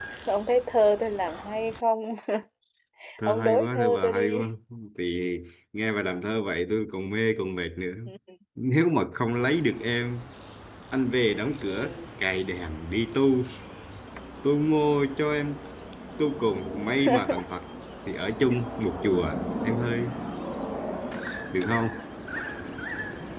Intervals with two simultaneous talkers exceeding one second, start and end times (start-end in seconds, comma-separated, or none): 3.3-4.5